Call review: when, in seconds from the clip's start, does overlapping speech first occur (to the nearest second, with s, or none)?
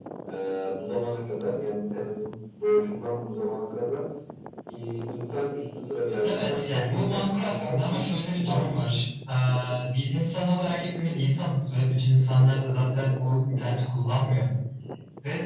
6 s